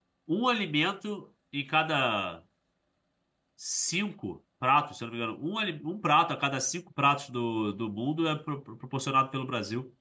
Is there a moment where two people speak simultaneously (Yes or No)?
No